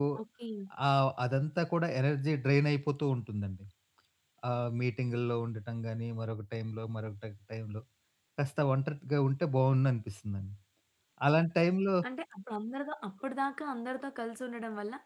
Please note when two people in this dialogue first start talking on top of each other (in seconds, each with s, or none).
none